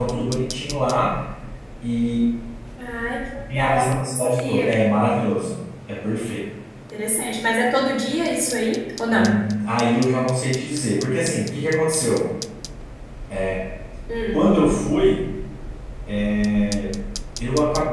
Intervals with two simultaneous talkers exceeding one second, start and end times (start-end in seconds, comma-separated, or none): 3.5-4.8